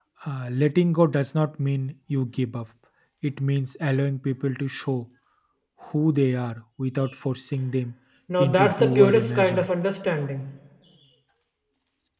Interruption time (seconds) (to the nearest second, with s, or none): 8 s